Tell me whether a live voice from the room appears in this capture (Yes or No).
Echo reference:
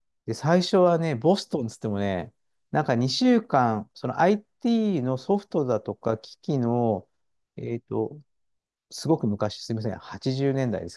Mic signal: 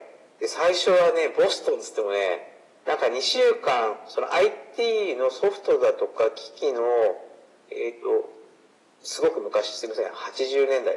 No